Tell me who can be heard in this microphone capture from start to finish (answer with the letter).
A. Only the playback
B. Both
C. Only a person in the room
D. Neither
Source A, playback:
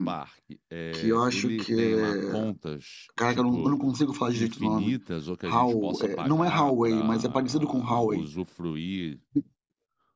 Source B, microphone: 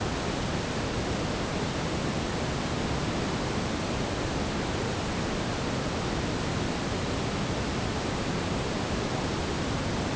D